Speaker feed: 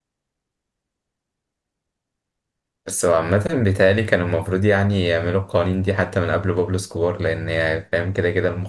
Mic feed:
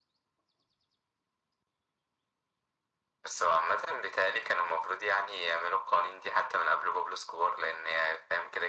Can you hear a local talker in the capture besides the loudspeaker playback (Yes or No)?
No